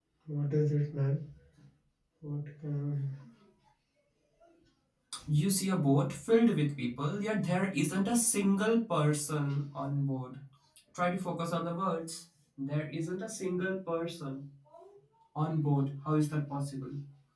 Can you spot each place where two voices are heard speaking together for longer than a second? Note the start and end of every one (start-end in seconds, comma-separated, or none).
none